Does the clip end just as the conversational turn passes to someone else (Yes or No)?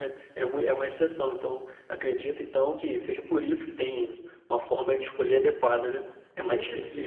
Yes